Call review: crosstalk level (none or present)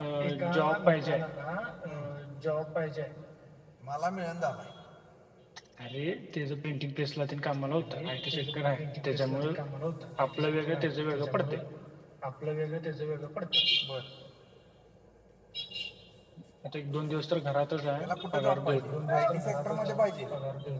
present